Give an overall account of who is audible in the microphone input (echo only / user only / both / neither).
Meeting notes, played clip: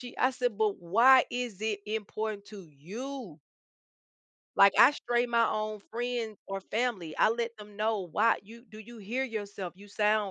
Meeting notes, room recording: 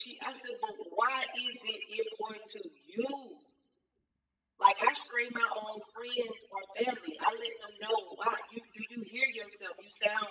echo only